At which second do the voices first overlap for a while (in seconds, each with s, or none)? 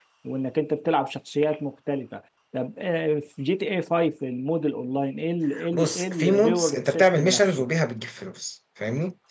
5.5 s